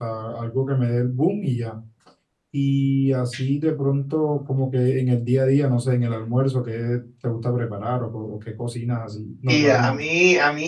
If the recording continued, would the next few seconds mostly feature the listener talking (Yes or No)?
Yes